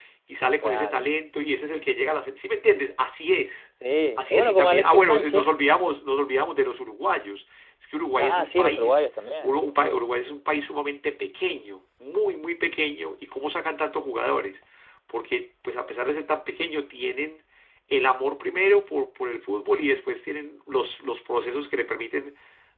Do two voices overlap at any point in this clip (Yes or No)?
Yes